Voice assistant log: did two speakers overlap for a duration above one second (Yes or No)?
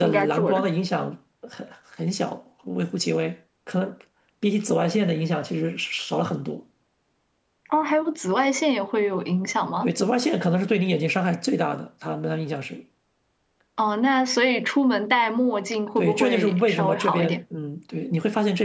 Yes